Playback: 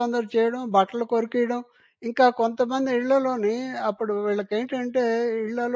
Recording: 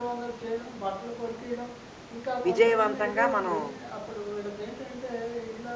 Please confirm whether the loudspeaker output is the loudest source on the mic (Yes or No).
No